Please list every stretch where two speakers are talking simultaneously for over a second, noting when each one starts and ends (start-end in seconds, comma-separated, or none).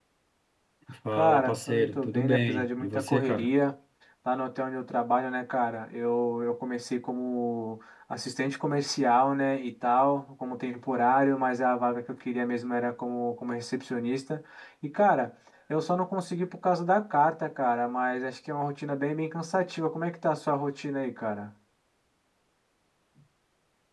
1.1-3.5